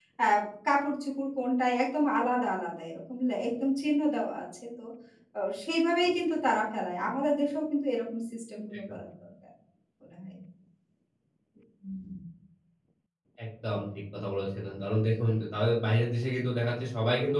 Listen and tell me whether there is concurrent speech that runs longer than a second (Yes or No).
No